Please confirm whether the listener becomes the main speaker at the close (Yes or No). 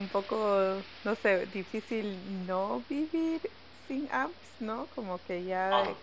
No